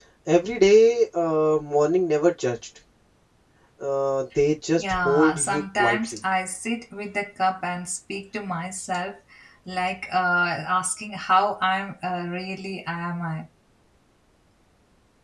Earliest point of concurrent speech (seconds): 4.8 s

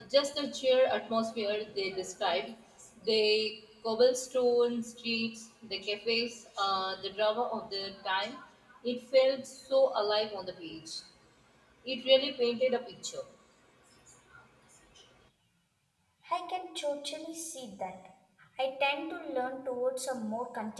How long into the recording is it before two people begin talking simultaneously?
none

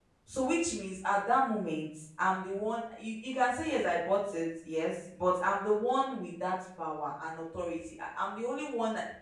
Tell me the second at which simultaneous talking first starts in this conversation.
none

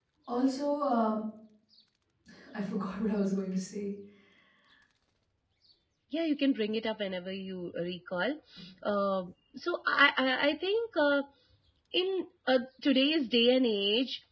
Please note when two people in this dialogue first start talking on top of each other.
none

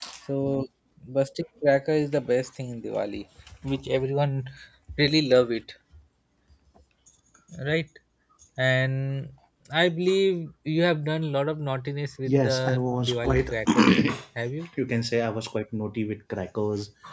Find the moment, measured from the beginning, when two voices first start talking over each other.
12.3 s

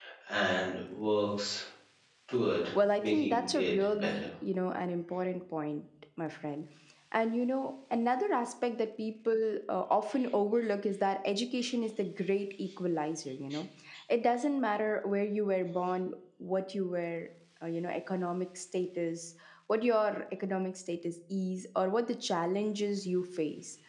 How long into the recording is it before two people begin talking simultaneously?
3.0 s

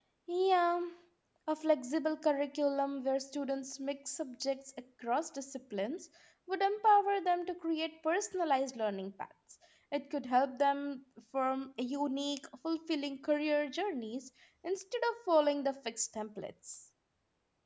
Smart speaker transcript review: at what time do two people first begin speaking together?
none

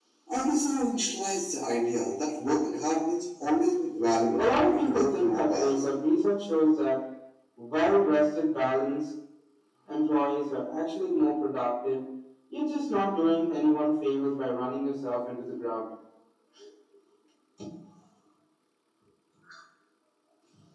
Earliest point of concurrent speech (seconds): 4.4 s

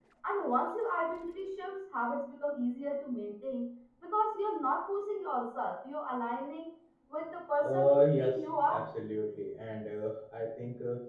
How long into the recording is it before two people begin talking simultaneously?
7.6 s

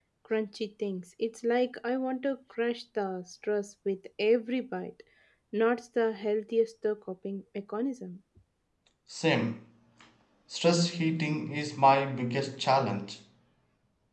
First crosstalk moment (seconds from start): none

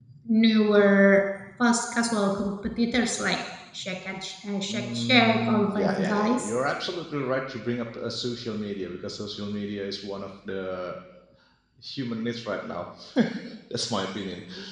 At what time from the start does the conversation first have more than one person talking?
4.7 s

